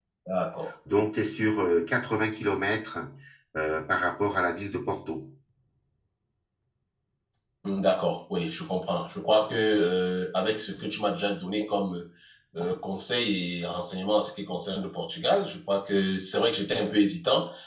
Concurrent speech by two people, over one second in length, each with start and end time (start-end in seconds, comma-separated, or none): none